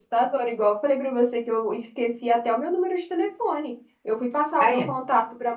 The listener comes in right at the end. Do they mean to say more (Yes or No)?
No